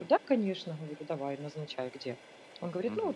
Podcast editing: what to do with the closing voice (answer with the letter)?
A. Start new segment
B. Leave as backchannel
A